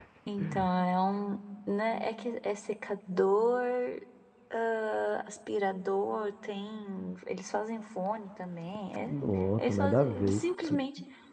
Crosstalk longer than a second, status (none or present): present